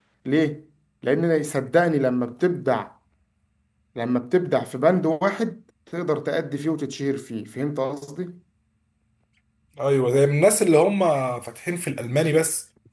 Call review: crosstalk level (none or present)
none